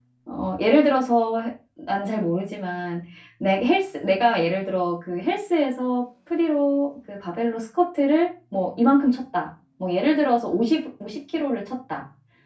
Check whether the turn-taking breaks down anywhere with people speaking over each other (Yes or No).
No